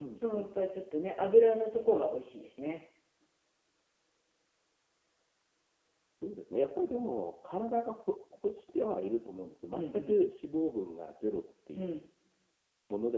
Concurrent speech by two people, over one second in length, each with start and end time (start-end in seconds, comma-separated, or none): none